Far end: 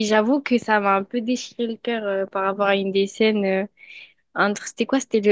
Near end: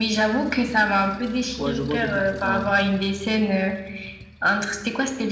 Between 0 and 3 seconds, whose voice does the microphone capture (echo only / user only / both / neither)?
both